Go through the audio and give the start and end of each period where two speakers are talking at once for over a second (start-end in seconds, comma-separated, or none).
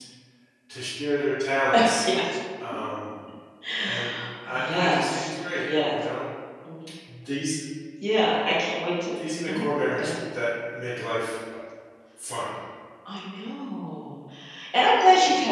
4.5-5.9